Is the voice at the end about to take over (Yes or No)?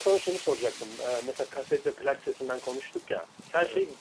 No